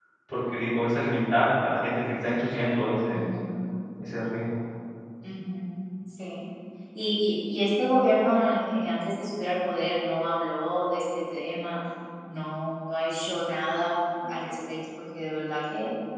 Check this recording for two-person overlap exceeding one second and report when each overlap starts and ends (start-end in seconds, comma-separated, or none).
none